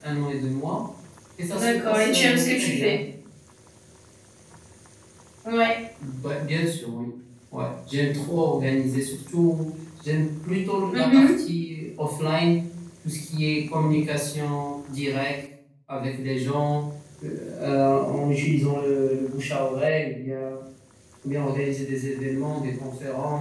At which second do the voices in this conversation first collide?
1.5 s

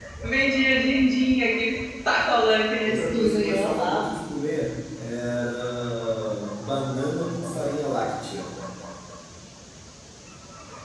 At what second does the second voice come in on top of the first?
2.8 s

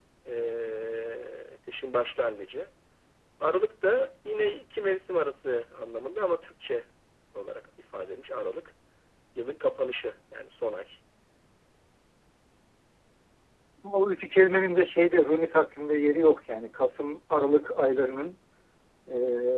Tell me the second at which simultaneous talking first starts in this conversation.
none

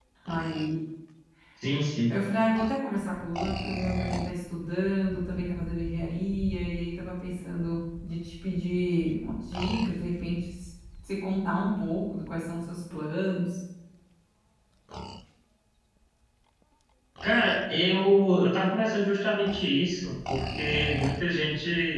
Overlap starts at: none

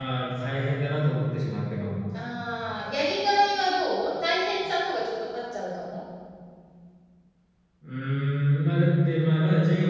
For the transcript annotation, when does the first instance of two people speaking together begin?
none

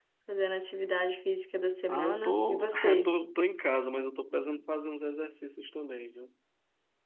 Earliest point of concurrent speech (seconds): 1.9 s

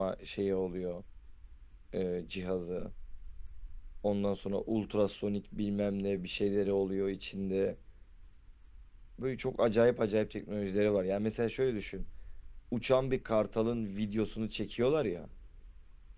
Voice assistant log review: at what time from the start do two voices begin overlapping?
none

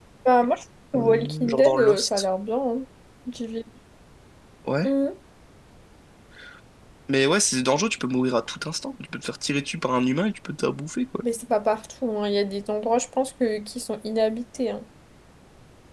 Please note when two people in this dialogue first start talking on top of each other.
1.0 s

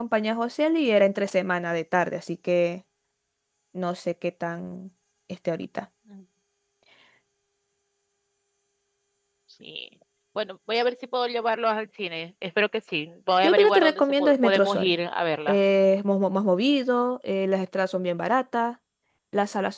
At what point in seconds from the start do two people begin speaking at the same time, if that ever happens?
13.4 s

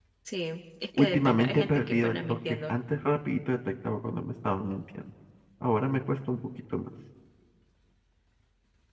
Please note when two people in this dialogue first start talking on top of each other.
1.0 s

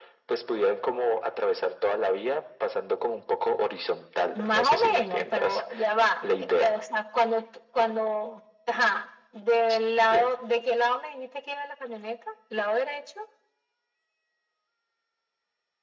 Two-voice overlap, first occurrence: 4.3 s

